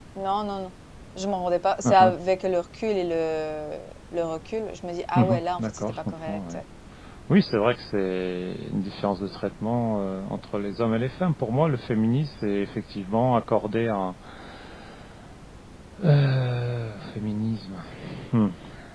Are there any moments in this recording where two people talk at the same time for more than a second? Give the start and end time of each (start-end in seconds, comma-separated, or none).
5.2-6.6